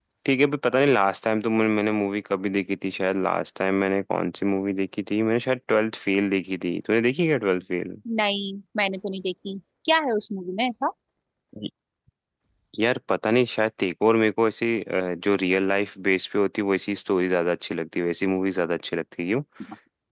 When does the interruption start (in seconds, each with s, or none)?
none